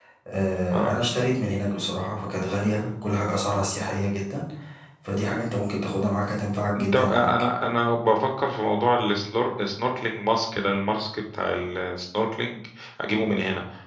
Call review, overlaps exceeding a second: none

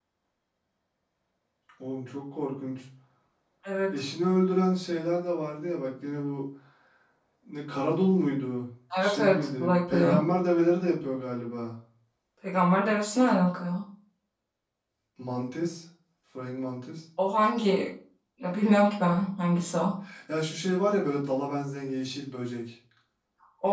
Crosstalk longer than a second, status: present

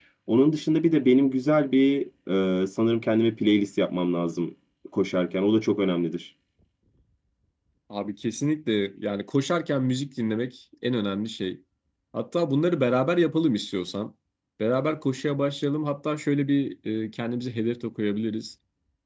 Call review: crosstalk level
none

